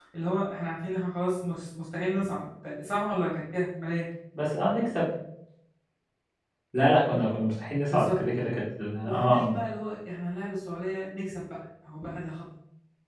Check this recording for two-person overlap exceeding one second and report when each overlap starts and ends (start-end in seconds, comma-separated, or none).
none